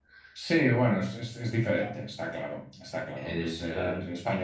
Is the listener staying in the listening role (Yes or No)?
Yes